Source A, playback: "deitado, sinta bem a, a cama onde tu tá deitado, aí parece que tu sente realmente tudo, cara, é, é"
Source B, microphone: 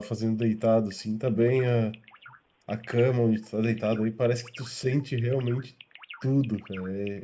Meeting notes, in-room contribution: none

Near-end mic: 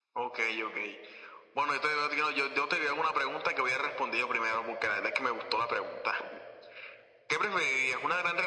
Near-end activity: none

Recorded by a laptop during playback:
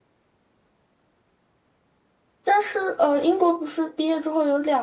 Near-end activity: present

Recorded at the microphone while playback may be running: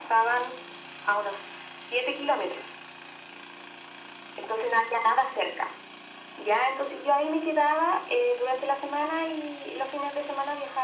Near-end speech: none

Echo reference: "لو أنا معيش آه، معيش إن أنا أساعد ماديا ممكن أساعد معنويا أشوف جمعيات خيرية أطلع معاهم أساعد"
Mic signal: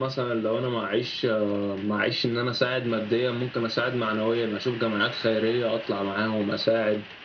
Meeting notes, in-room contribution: none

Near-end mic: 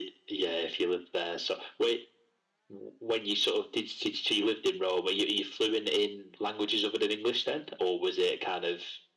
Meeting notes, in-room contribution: none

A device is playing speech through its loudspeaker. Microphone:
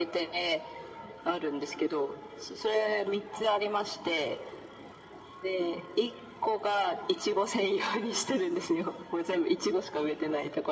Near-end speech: none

